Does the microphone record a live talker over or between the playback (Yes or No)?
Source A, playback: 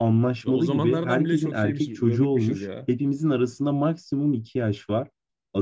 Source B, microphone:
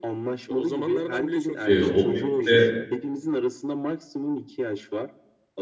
Yes